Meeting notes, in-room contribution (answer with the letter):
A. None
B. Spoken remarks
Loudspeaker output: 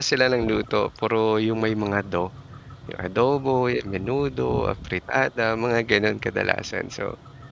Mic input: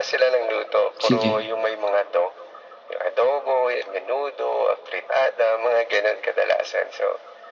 B